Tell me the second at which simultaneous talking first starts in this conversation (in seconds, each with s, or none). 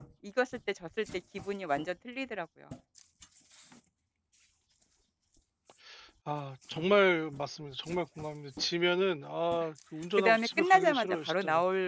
10.2 s